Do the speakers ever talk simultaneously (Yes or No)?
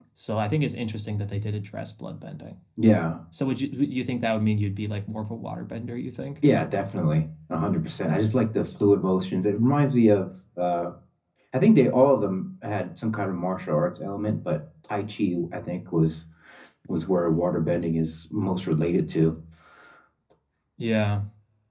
No